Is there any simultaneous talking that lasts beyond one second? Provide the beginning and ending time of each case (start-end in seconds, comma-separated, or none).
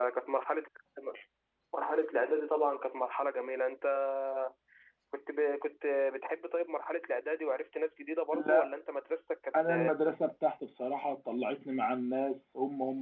none